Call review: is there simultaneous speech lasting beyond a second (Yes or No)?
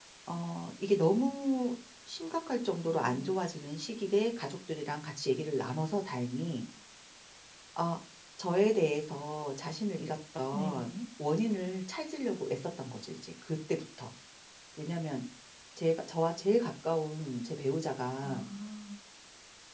No